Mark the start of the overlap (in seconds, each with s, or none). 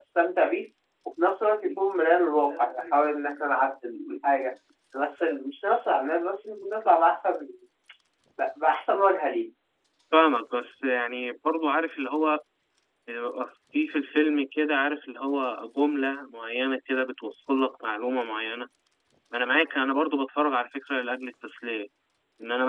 none